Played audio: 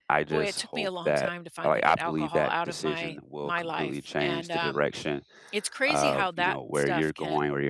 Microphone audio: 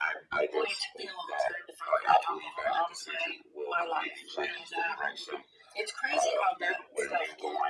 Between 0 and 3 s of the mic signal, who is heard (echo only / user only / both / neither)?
echo only